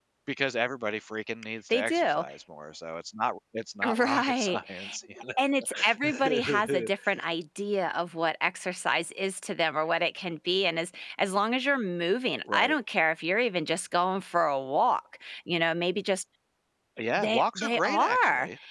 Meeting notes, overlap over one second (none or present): present